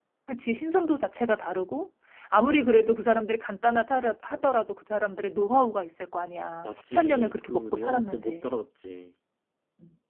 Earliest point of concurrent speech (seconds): 7 s

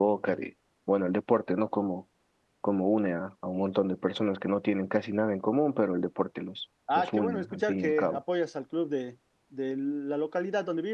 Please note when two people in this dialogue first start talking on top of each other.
7 s

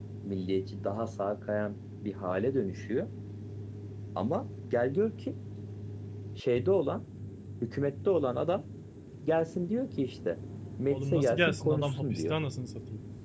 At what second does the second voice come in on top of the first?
11 s

